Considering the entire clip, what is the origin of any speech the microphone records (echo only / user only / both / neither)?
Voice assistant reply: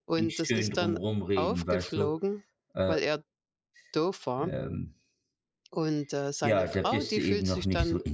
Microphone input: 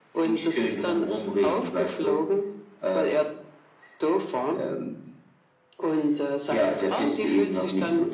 echo only